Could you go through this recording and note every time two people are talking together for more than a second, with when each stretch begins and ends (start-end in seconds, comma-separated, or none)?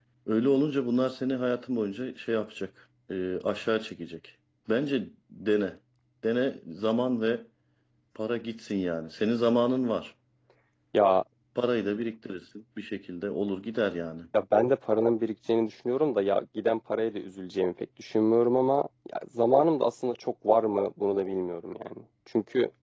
none